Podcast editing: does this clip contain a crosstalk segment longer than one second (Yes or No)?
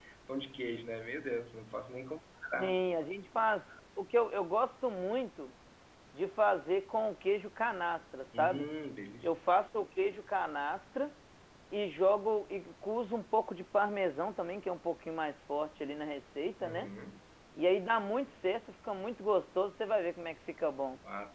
No